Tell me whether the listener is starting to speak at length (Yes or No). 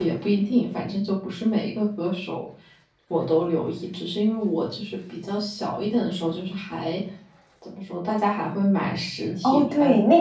Yes